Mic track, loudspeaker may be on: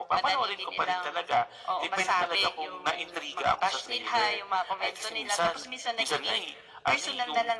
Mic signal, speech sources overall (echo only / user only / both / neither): echo only